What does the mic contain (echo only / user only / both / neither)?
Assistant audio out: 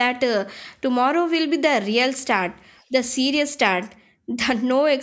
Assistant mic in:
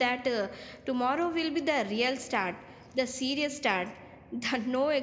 echo only